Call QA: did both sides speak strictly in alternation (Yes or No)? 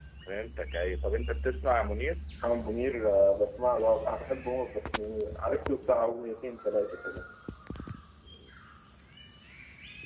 Yes